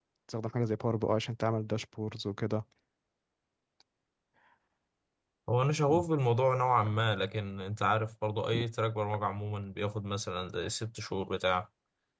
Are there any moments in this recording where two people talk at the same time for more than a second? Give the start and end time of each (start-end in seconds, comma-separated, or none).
none